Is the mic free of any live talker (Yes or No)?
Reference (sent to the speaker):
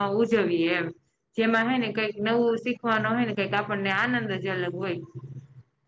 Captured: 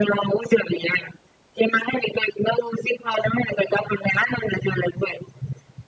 Yes